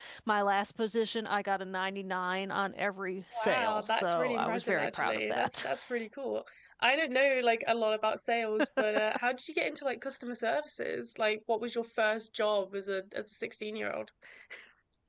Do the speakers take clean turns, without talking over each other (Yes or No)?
No